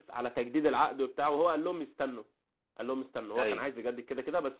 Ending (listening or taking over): listening